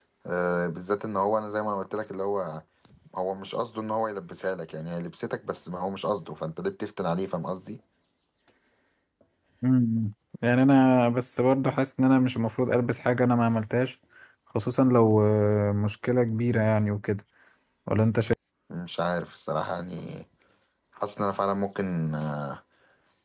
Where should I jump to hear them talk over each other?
none

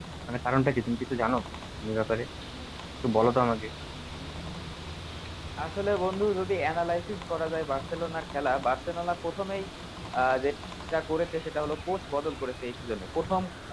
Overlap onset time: none

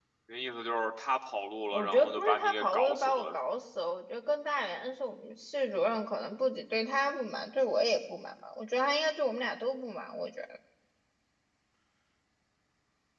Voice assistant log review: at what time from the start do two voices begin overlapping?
1.7 s

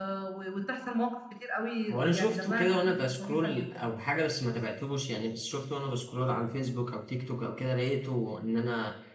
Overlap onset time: 2.1 s

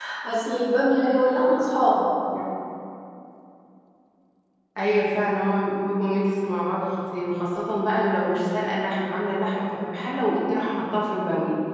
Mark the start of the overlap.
none

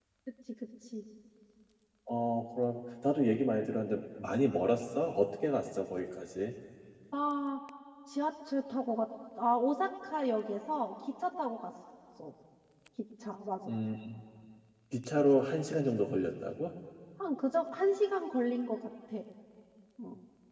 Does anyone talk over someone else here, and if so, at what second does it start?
none

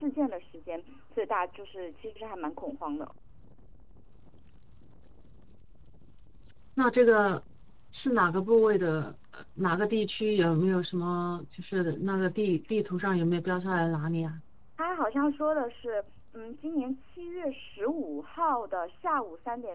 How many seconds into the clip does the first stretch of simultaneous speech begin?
none

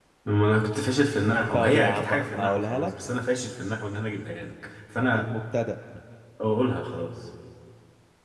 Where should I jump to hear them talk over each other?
1.5 s

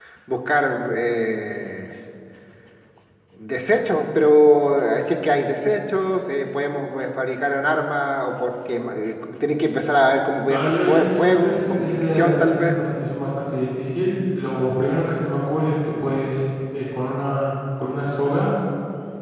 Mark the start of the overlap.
10.5 s

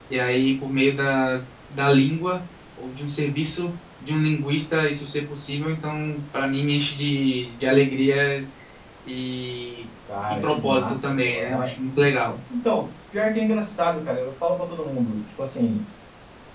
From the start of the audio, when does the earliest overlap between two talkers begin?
10.3 s

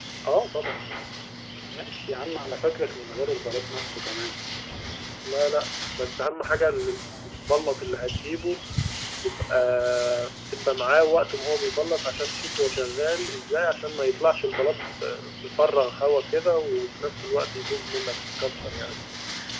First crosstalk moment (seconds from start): none

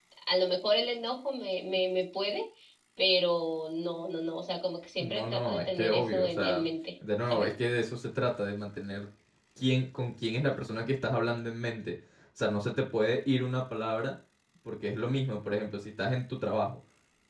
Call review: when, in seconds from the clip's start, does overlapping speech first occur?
5.0 s

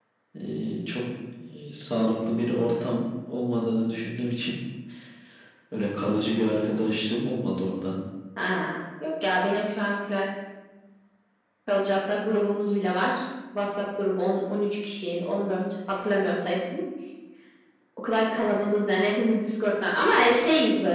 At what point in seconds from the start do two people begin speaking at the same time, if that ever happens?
none

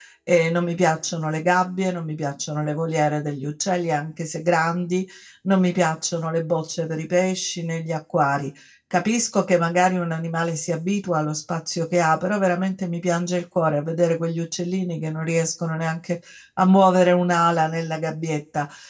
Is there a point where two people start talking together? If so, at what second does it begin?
none

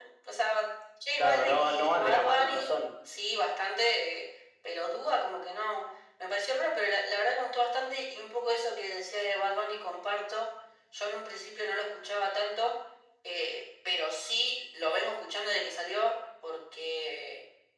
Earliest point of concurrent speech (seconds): 1.2 s

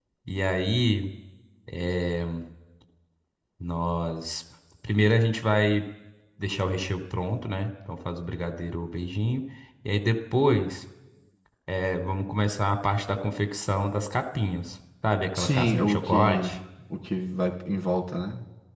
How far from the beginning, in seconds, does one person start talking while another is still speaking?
15.4 s

